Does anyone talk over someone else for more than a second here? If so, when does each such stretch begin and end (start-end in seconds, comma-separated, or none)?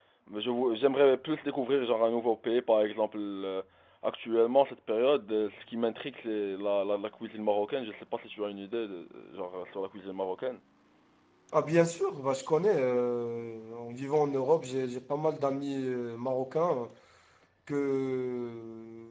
none